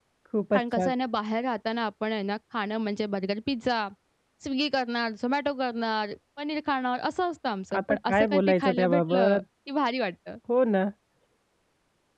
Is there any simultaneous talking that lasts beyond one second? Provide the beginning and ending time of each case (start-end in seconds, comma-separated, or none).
7.8-9.4